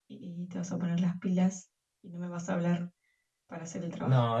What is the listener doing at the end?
taking over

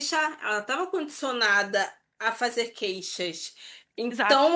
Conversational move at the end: listening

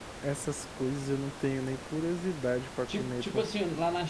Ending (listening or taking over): taking over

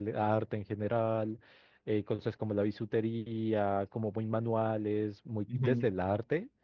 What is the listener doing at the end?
listening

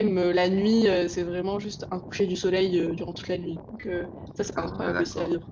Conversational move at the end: taking over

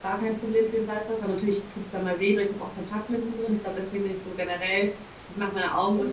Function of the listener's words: listening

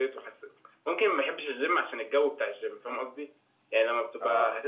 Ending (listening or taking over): listening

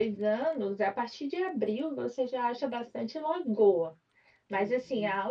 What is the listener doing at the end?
listening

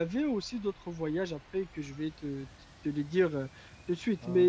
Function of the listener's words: listening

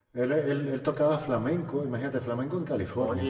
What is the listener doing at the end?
taking over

